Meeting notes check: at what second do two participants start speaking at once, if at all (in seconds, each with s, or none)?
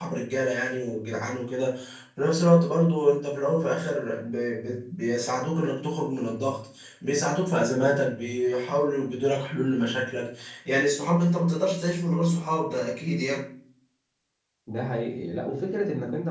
none